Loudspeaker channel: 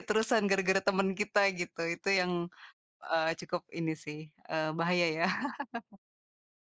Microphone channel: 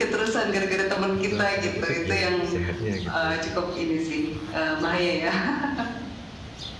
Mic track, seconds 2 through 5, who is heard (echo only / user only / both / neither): both